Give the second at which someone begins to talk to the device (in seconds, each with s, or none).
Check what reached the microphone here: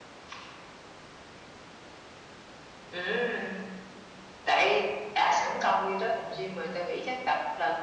none